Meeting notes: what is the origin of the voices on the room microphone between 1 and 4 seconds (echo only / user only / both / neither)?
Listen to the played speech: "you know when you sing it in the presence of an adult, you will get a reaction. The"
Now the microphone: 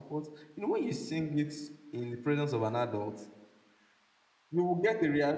echo only